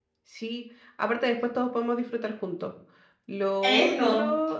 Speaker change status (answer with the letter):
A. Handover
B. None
B